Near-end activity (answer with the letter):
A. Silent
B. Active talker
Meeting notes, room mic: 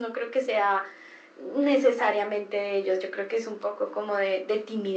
A